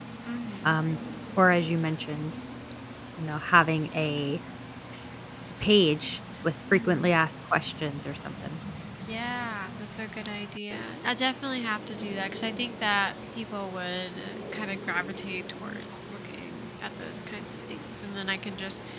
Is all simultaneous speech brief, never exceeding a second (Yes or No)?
Yes